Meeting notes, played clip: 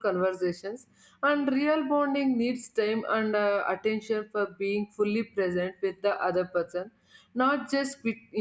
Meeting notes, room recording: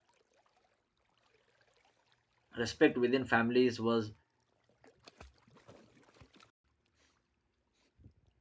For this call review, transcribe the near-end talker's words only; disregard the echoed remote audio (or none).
Respect within families was